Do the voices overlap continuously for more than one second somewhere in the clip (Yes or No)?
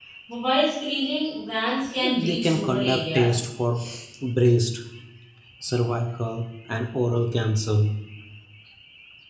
Yes